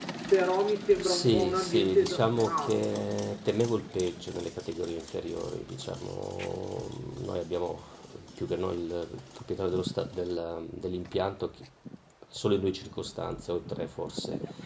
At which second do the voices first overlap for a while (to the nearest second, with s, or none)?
1 s